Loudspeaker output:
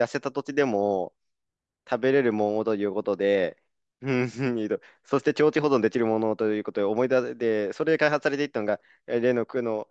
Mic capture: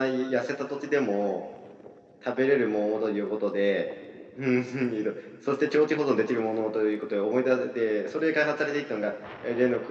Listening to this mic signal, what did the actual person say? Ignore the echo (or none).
none